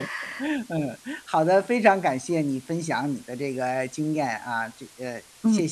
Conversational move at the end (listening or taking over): taking over